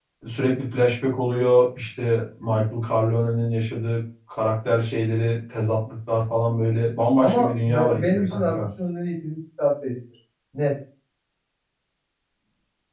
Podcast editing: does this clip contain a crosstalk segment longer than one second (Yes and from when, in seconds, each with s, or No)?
Yes, from 7.2 s